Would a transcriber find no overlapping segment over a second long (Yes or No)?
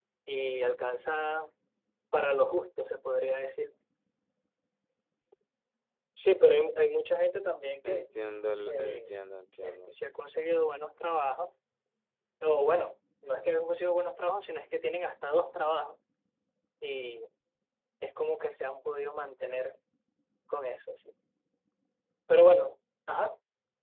Yes